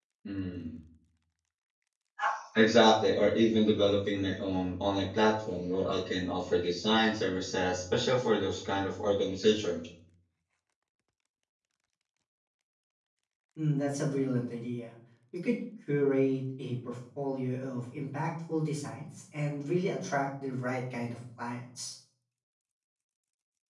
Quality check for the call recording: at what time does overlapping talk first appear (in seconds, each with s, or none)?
none